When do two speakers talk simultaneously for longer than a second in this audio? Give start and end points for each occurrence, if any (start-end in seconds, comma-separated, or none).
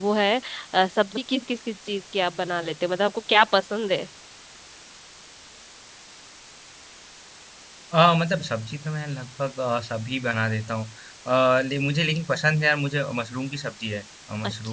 none